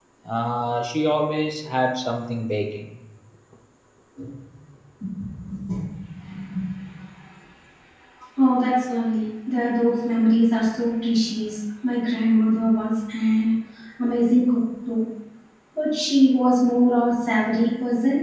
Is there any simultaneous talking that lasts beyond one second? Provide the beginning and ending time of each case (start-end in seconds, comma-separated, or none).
none